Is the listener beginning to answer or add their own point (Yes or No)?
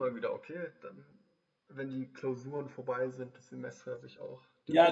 Yes